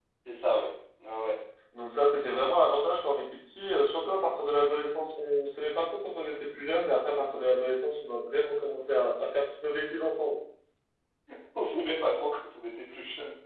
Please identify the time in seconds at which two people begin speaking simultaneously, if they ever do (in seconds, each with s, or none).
none